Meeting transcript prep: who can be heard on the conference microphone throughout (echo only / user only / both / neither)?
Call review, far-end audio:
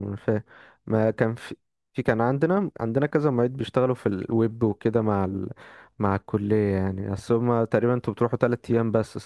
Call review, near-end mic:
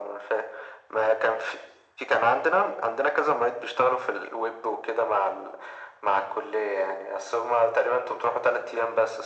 echo only